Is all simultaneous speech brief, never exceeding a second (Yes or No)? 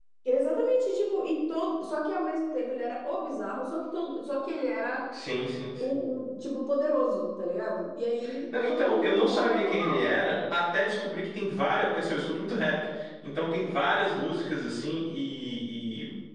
No